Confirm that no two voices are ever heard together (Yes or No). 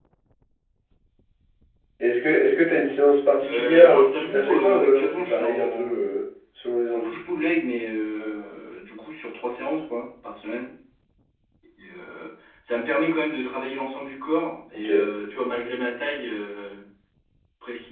No